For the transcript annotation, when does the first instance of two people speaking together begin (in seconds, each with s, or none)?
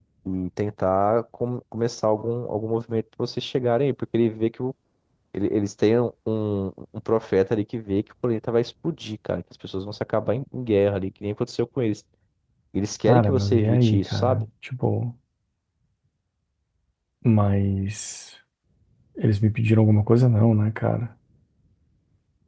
13.1 s